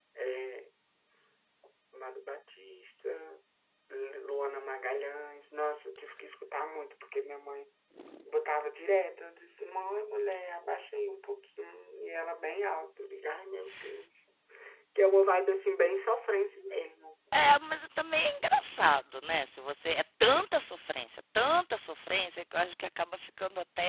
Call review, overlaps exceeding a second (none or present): none